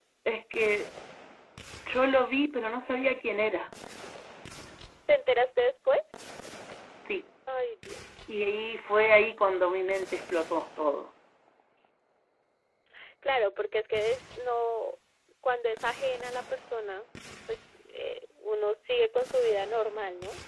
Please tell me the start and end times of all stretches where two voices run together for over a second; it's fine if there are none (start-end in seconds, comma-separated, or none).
none